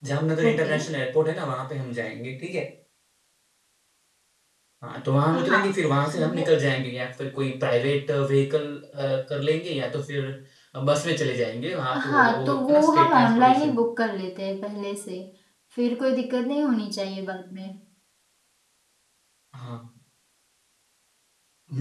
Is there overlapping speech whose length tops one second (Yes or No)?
Yes